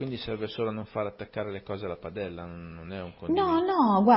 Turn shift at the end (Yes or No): Yes